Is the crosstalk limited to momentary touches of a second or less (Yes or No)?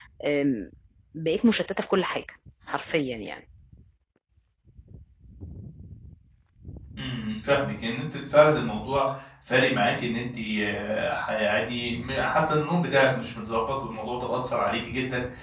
Yes